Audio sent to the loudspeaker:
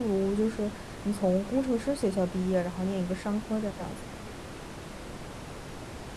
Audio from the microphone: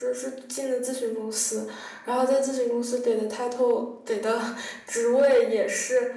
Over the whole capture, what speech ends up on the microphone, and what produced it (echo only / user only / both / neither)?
user only